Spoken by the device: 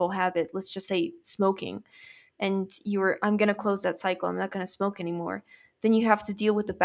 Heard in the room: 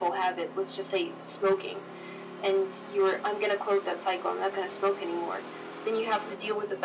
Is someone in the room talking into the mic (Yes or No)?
No